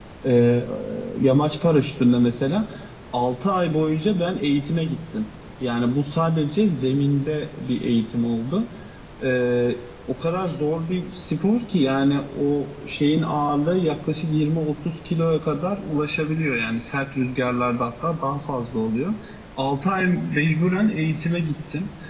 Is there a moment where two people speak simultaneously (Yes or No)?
No